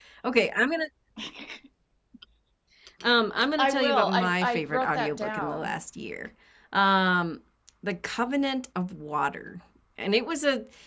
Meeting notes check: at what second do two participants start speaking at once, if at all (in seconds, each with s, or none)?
3.6 s